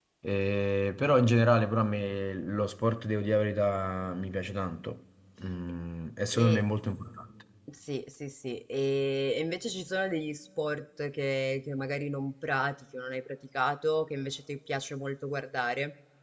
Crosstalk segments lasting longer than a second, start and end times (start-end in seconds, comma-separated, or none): none